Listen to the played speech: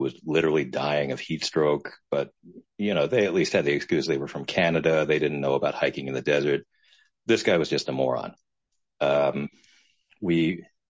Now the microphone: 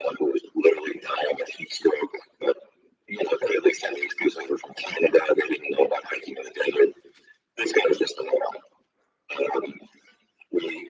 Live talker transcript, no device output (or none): none